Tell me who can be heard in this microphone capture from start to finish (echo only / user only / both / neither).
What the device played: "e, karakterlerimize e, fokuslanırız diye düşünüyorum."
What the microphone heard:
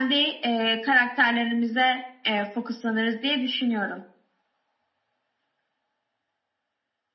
echo only